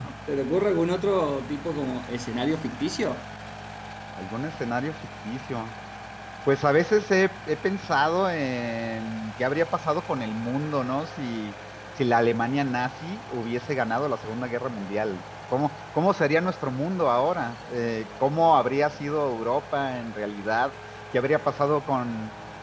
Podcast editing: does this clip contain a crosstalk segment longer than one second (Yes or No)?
No